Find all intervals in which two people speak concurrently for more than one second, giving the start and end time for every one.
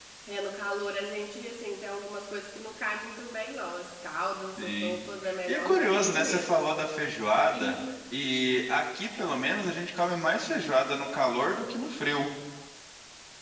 5.5-6.8

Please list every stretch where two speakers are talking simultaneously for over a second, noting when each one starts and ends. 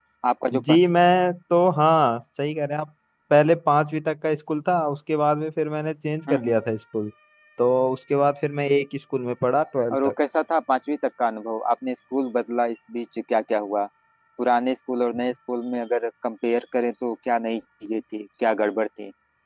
none

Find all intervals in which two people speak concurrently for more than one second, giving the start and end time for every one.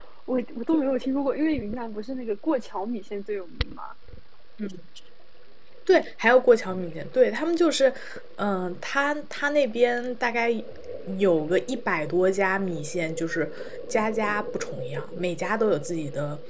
none

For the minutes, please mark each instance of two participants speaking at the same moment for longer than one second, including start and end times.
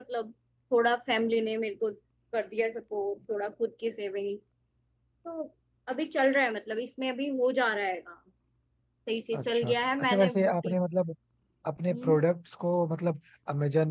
9.4-10.7

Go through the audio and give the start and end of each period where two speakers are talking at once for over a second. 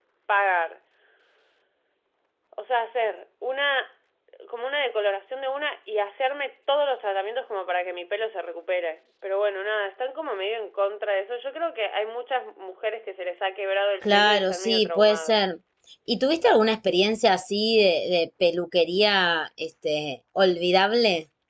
14.0-15.4

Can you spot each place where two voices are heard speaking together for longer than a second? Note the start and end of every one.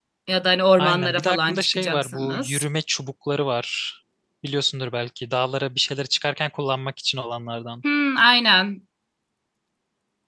0.8-2.6

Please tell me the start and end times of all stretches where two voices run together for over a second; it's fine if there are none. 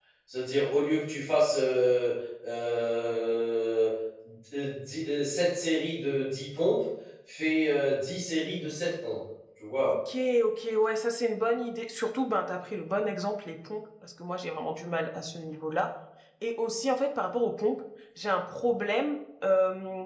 none

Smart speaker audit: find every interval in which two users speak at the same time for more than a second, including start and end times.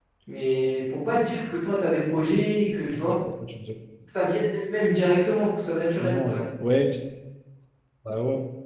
none

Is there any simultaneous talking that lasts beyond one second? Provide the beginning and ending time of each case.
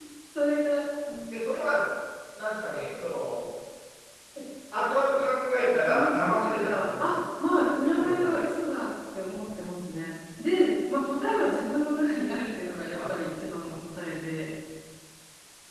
5.8-7.0

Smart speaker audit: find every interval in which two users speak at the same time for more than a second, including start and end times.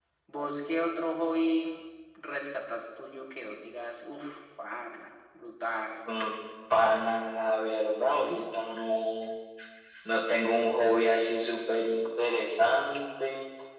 none

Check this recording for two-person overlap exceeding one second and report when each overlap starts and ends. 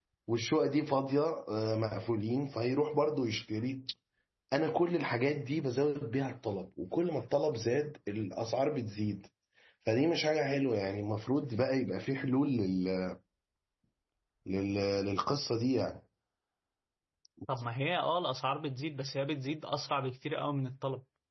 none

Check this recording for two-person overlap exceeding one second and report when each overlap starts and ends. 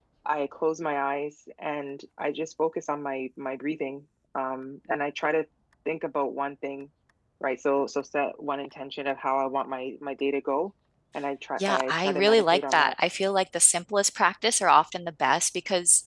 11.6-12.9

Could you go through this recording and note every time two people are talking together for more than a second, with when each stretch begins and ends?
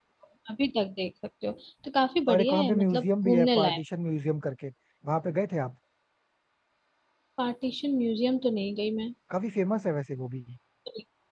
2.3-3.8

